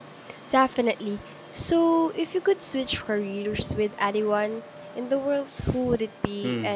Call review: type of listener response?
taking over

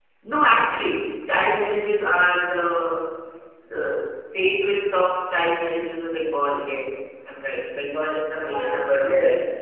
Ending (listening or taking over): taking over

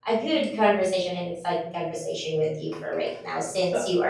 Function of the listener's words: listening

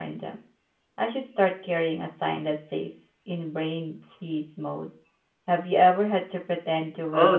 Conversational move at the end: taking over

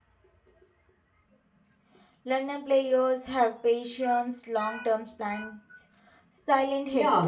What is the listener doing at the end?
taking over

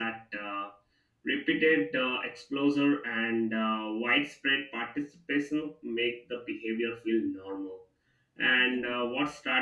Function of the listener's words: listening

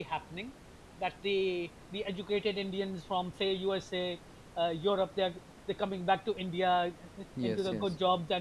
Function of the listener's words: listening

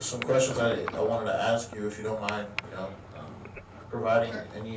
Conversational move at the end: listening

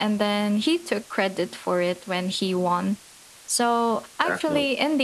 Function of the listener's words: listening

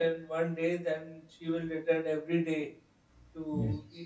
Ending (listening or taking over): listening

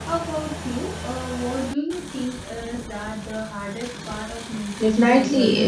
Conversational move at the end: taking over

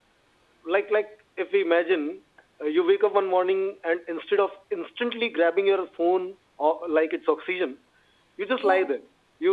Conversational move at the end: listening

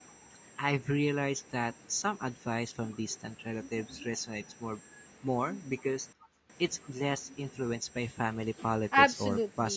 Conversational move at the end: taking over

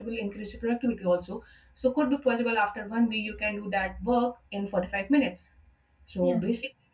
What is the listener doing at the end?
listening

